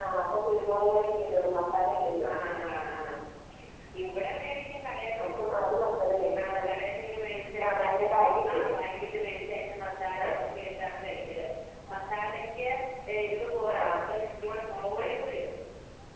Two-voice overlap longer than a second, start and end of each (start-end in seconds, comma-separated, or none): none